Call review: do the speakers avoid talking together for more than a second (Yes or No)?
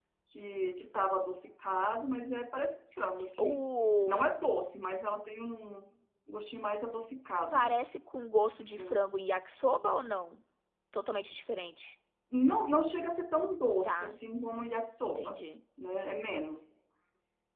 Yes